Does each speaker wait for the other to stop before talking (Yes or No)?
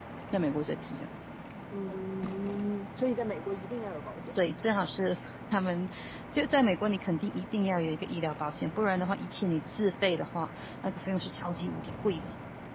Yes